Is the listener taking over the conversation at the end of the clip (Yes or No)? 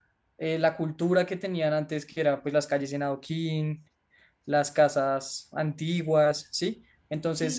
Yes